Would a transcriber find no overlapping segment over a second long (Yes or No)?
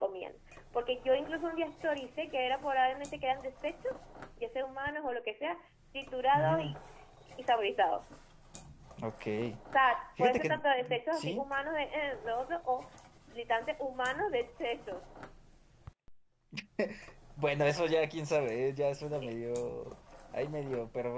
No